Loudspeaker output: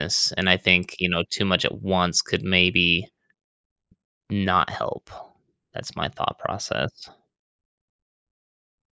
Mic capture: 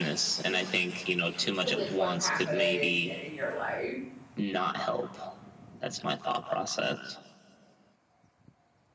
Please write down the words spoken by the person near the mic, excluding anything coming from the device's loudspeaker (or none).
Because it's what's happening in your life.